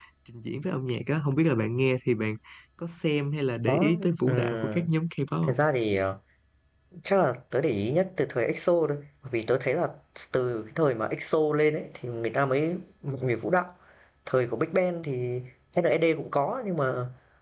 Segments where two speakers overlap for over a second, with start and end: 3.7-4.9

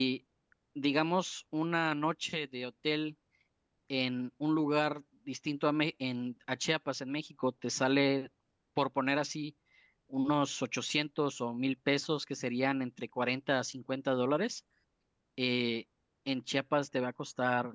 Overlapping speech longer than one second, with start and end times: none

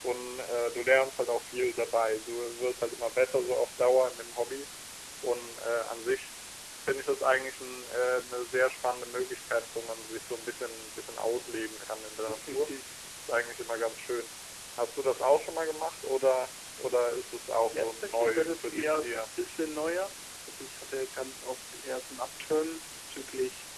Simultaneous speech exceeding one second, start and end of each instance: 17.7-19.2

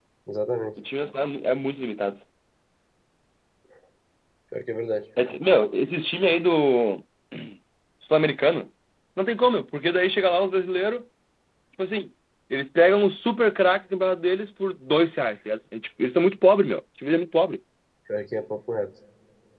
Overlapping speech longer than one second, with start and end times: none

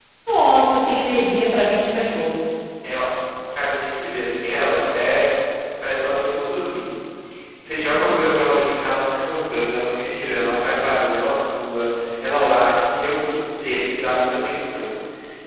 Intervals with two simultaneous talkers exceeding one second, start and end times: none

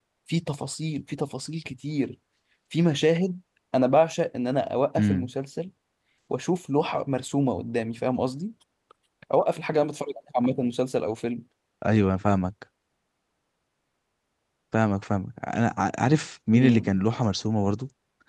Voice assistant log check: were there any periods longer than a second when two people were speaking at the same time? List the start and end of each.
none

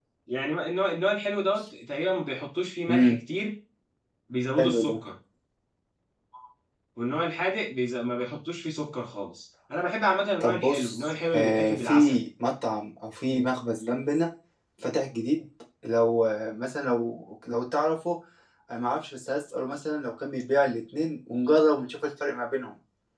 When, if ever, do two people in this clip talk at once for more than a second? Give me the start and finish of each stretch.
10.4-12.2

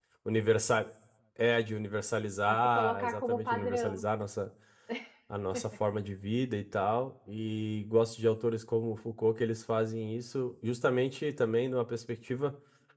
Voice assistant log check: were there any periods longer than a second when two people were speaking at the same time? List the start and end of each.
2.5-4.0

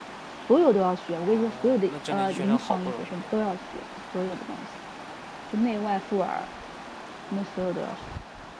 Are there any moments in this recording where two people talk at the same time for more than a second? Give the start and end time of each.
1.3-3.2

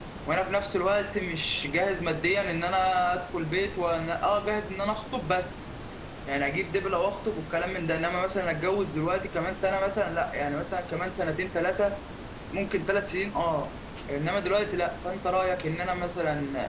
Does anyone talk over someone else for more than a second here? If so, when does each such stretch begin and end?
none

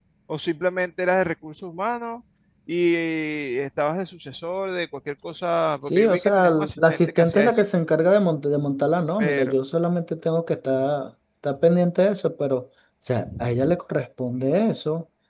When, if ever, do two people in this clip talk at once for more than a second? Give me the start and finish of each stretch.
5.9-7.5

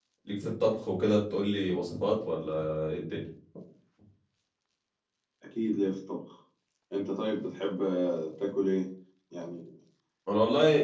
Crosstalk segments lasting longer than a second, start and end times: none

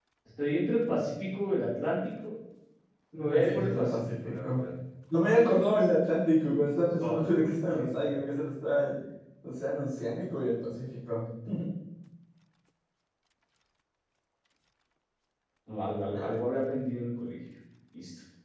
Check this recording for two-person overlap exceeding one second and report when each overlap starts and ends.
3.4-4.6

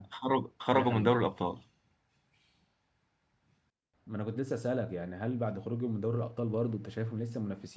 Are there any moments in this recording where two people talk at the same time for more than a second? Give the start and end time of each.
none

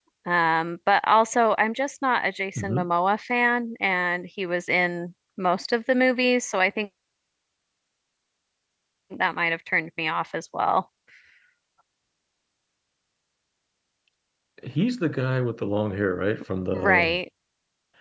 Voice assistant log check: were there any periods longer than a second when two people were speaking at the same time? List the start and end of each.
none

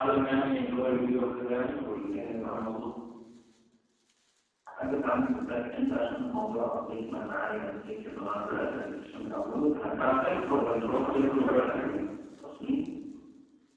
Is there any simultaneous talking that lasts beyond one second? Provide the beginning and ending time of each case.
9.9-12.0

